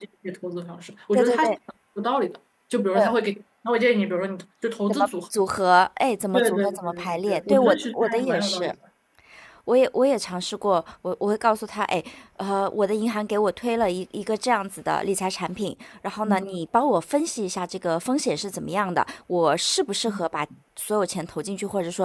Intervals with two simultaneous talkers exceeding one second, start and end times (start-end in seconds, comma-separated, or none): 6.3-8.7